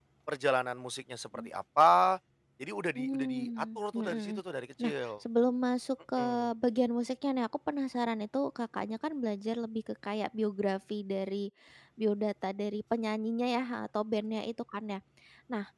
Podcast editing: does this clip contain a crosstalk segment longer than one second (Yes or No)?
Yes